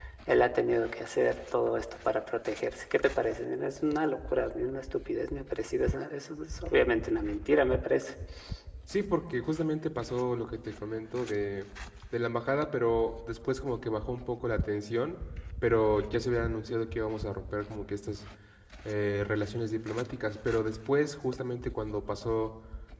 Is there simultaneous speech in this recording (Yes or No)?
No